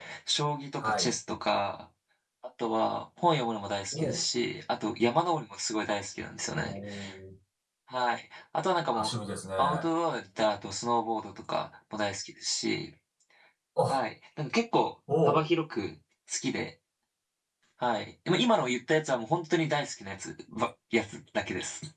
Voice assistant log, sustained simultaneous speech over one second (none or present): none